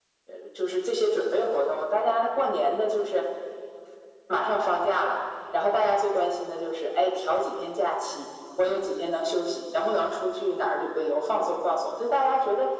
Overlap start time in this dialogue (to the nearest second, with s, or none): none